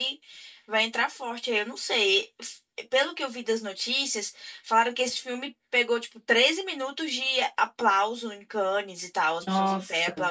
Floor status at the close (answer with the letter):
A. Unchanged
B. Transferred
A